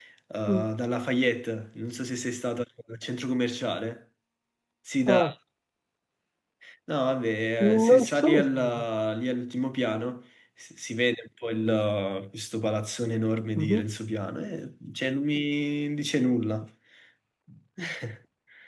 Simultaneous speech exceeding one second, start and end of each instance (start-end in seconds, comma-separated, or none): 7.6-8.8